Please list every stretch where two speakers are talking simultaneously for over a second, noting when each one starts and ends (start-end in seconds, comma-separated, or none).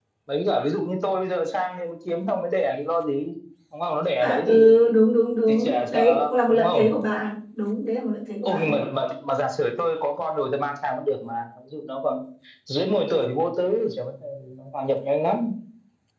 5.5-6.8